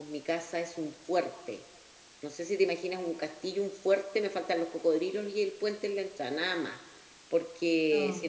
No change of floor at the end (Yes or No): Yes